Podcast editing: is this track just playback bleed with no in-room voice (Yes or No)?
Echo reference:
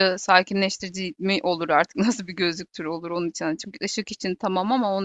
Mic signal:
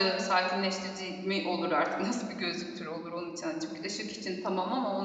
Yes